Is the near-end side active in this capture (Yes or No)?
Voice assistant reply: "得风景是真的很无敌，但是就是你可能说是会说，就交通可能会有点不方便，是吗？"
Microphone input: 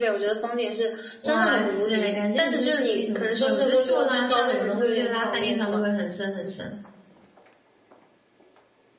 Yes